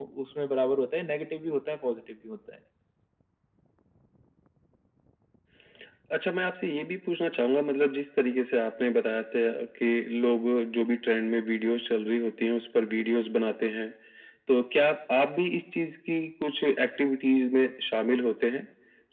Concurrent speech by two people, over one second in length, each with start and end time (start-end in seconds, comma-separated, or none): none